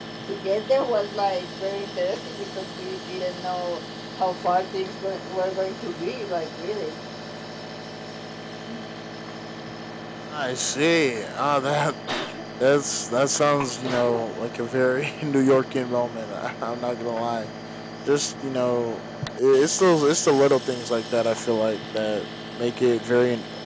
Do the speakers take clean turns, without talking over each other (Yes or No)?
Yes